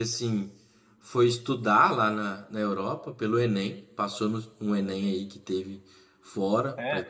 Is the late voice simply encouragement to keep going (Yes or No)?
Yes